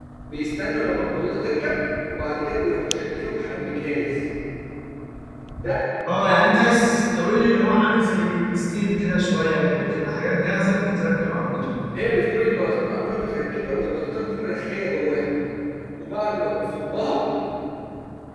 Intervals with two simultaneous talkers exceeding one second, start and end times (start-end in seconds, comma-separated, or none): none